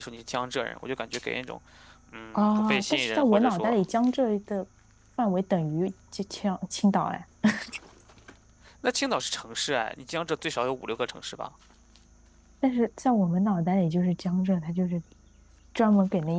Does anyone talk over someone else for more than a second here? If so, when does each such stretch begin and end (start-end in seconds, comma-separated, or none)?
2.3-3.8